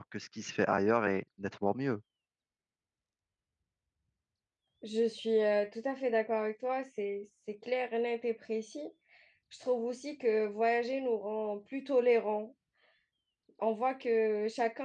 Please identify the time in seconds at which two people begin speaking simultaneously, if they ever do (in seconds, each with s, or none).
none